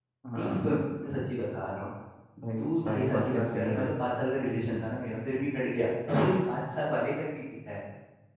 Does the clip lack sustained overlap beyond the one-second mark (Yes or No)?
No